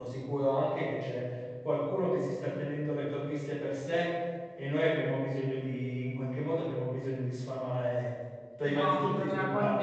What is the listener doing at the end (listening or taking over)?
taking over